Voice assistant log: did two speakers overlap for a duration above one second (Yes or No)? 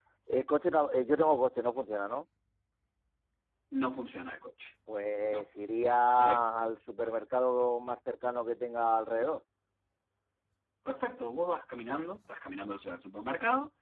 No